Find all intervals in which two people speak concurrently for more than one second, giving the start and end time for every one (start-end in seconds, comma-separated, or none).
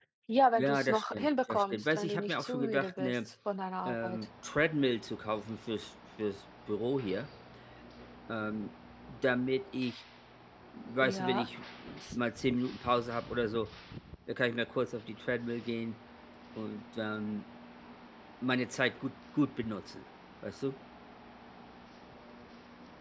0.6-3.2